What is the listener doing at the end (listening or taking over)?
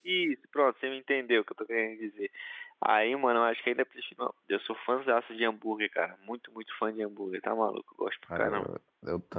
taking over